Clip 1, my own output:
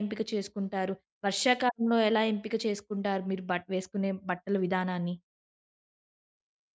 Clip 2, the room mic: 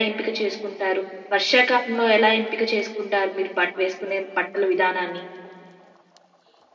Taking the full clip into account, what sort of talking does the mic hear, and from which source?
echo only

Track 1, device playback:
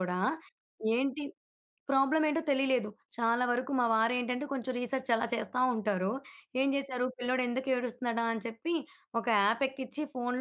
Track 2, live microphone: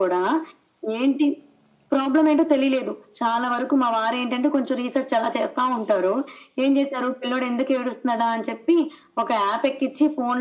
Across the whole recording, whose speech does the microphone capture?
echo only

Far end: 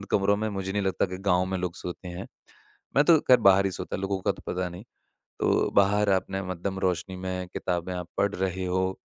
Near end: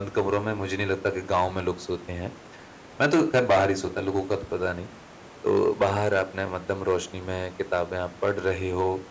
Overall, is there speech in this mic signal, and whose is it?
echo only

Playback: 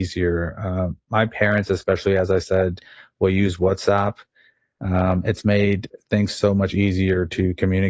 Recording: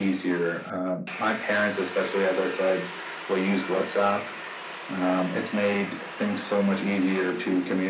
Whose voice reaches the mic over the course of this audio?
echo only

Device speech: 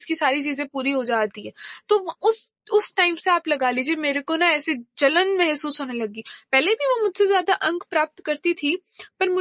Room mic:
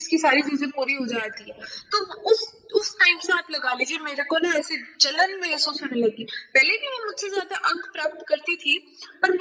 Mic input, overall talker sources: echo only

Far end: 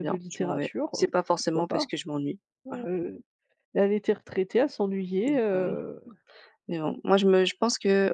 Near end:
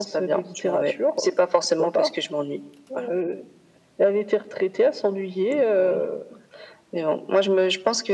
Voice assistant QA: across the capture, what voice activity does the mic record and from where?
echo only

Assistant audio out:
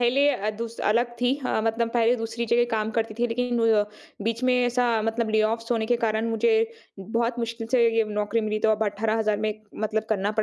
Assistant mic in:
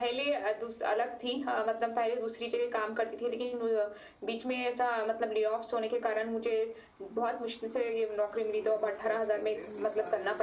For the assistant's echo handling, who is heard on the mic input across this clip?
both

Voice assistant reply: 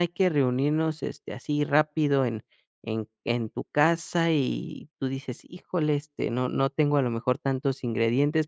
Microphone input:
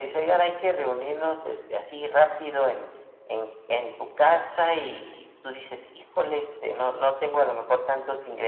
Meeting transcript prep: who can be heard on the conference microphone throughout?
echo only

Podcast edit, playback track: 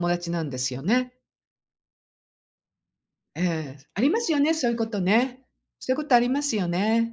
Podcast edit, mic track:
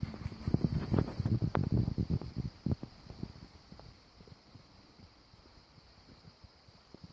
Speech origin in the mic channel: neither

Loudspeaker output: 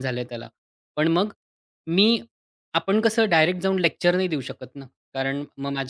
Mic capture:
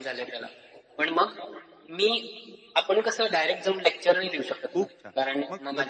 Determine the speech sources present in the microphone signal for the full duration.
both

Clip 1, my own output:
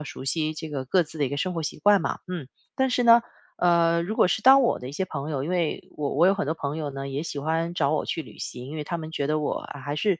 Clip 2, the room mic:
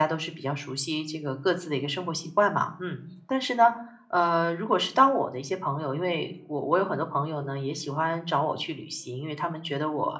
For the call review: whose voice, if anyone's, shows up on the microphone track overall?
echo only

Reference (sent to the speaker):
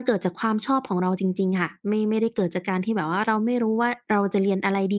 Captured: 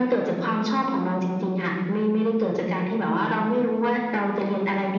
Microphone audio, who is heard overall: echo only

